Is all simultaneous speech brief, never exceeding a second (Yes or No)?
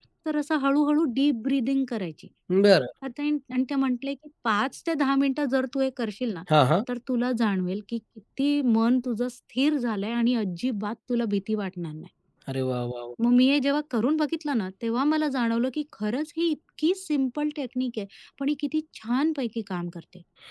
Yes